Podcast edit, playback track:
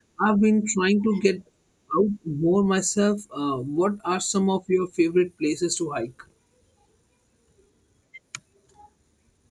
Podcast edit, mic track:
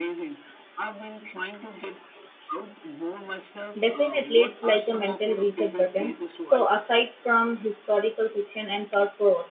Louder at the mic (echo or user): user